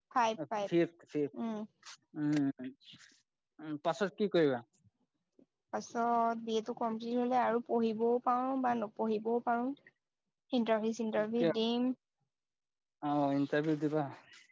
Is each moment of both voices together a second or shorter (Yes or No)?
Yes